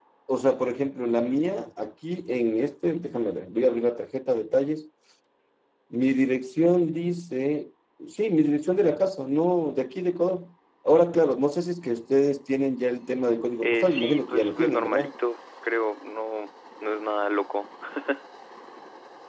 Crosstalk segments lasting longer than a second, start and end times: 13.6-15.1

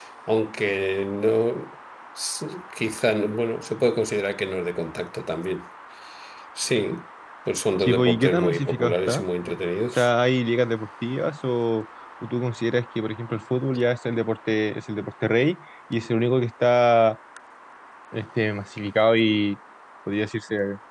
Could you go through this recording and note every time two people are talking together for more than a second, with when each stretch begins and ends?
7.8-9.2

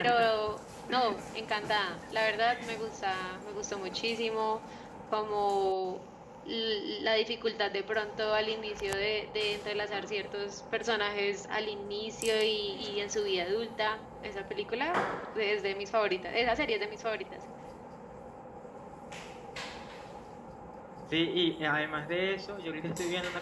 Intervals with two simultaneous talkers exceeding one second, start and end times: none

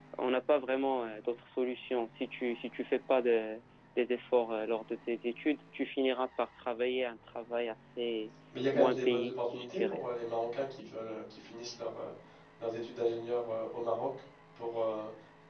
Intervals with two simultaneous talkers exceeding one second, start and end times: 8.7-10.0

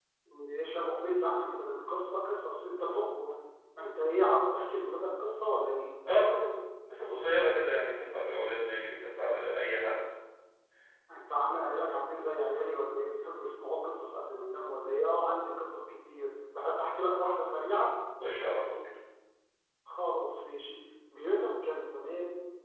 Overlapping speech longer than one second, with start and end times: none

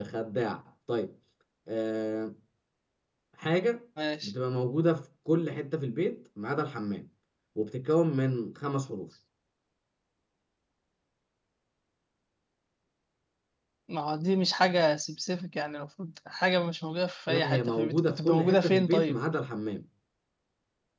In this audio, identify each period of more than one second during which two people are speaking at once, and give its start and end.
17.3-19.2

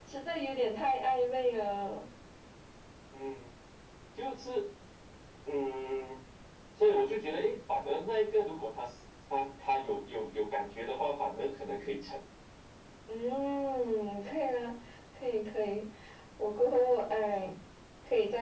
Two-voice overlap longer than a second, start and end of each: none

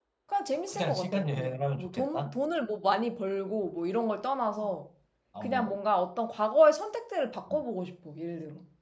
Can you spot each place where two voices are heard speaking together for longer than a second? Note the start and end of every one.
0.7-2.4

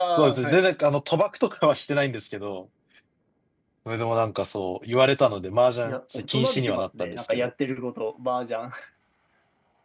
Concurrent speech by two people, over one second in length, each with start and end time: 5.8-7.5

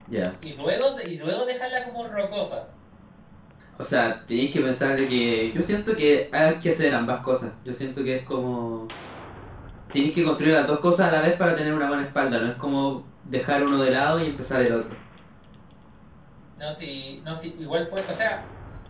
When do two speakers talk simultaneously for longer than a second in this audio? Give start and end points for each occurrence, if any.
none

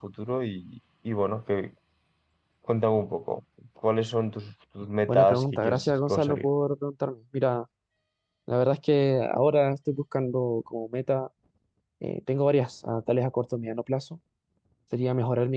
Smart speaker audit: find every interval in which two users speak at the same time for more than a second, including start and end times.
5.0-6.5

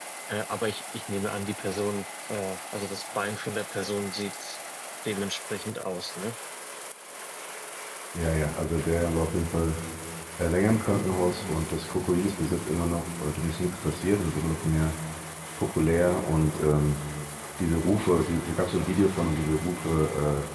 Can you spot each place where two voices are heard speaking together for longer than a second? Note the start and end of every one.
none

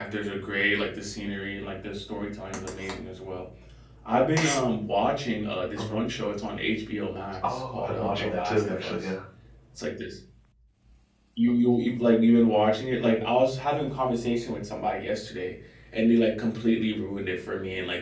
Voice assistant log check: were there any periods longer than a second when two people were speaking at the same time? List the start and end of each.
7.4-9.1

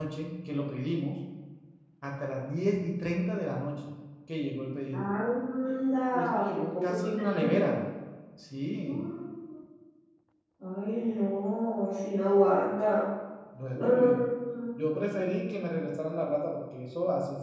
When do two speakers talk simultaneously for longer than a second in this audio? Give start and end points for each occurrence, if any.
6.1-7.7

